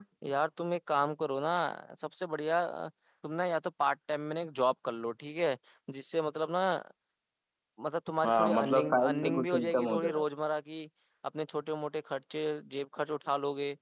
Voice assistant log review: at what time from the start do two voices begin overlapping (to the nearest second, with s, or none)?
8 s